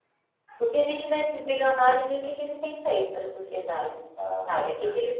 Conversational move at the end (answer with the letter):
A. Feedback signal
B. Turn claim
A